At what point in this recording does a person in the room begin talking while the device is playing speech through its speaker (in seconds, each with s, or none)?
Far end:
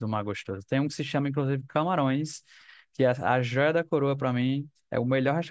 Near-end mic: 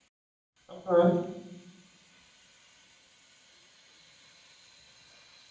0.7 s